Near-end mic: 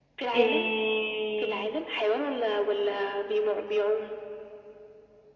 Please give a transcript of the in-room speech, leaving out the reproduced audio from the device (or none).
إيه...